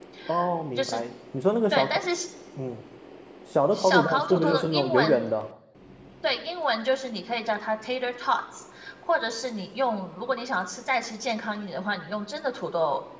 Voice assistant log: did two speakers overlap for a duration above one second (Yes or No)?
Yes